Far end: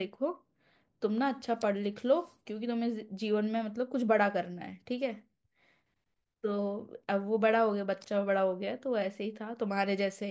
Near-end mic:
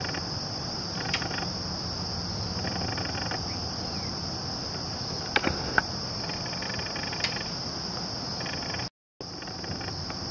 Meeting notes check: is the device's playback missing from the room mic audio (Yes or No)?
Yes